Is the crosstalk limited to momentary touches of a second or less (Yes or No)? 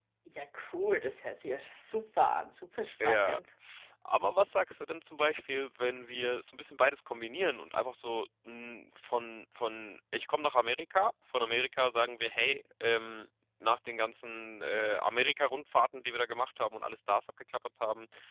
Yes